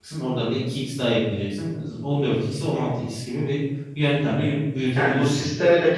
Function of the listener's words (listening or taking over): taking over